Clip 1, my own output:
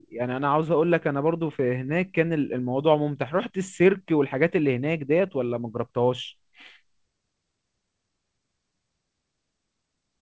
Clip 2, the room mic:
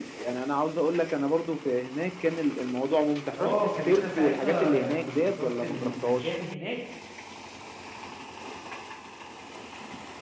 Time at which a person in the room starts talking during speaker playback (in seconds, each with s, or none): 3.4 s